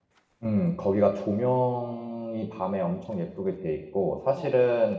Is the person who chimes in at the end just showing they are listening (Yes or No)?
Yes